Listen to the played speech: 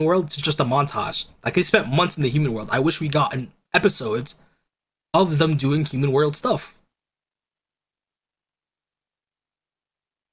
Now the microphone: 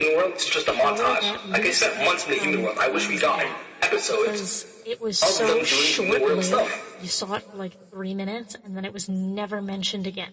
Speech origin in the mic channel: both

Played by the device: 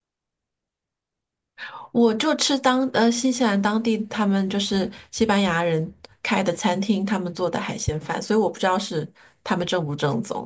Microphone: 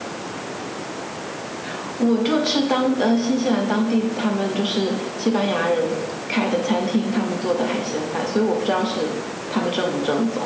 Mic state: echo only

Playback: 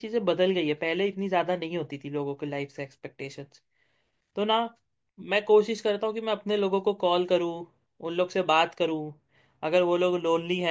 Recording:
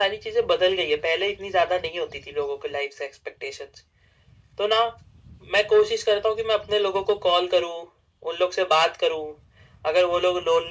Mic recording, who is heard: echo only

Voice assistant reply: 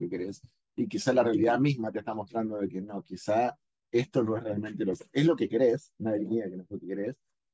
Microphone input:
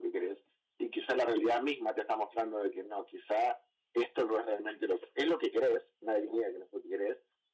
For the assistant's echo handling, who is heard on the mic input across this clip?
echo only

